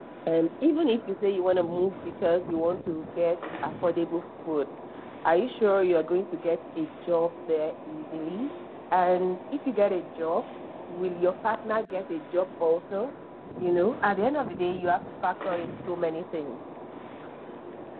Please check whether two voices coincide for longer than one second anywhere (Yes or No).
No